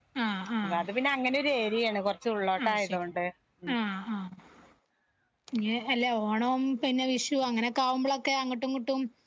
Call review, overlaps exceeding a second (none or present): none